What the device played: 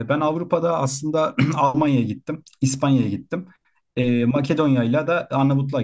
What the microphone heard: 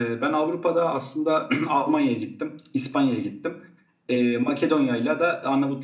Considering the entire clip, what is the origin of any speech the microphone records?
echo only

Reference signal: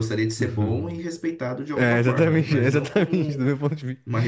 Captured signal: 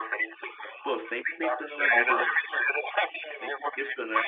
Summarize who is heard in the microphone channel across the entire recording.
both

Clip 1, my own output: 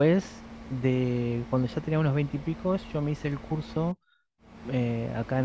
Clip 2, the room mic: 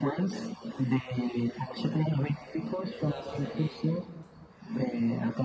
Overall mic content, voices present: both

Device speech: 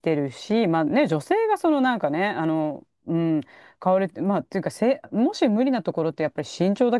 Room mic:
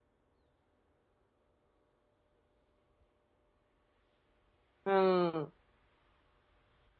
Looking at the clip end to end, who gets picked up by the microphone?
user only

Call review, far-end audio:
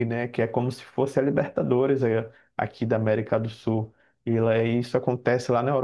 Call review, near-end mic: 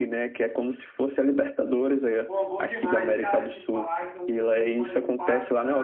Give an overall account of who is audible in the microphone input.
both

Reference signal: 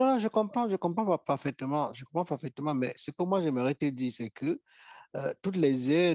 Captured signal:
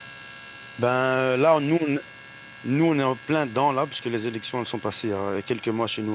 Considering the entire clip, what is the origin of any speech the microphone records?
user only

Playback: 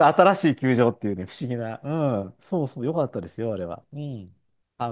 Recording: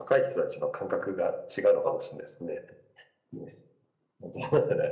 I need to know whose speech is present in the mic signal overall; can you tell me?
user only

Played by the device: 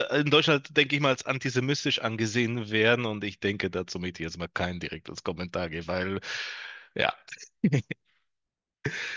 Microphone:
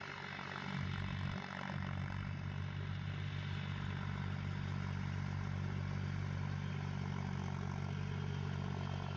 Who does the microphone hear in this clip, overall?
neither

